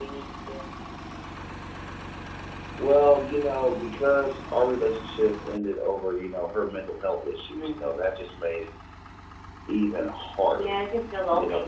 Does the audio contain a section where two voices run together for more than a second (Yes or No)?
No